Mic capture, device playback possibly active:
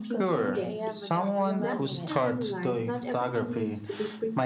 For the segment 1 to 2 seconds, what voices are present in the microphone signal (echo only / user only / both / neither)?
both